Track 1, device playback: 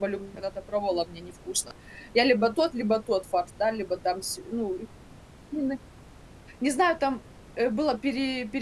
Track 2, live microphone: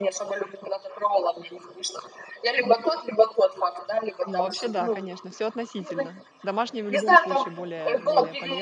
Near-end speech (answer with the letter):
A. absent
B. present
B